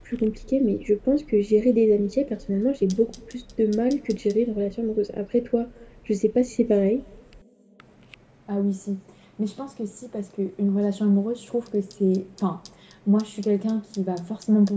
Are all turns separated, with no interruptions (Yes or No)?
Yes